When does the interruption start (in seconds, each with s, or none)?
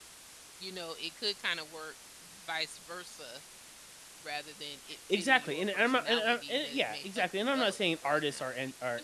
5.1 s